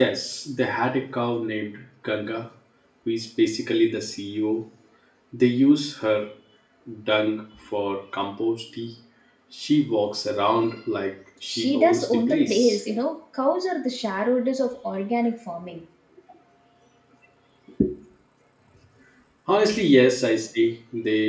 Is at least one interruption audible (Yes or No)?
Yes